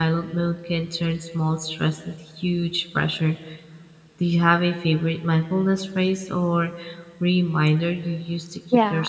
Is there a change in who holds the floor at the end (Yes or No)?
Yes